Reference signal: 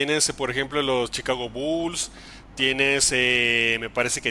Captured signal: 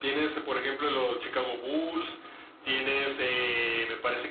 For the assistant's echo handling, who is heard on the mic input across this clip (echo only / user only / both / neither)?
echo only